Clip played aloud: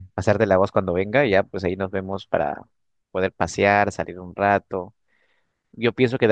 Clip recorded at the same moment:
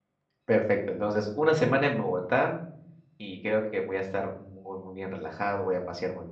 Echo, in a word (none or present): none